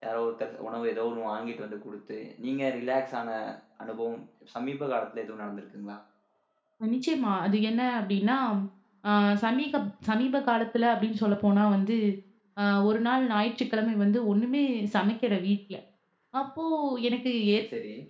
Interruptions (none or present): none